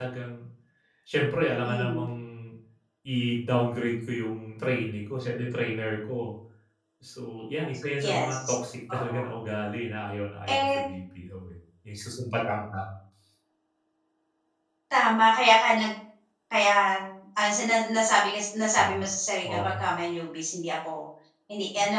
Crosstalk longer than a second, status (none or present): none